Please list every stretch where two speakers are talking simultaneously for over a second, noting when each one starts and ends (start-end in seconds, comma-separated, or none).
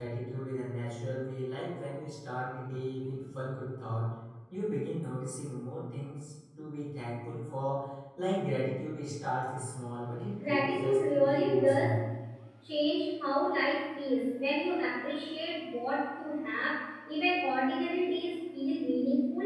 10.4-12.0